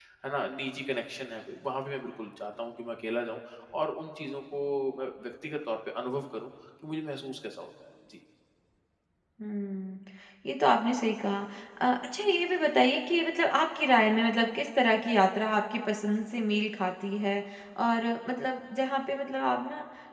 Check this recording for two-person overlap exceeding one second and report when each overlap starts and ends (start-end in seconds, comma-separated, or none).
none